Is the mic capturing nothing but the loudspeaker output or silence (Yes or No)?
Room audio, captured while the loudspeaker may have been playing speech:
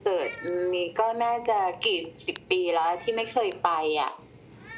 Yes